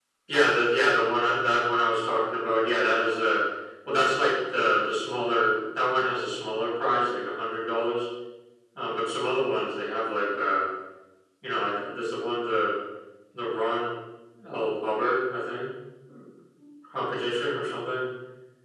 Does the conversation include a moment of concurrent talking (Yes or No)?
No